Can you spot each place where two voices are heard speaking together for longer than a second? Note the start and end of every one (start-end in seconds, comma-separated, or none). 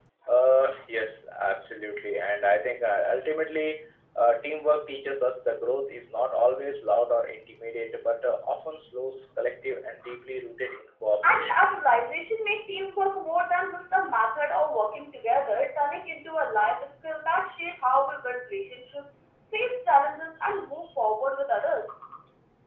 none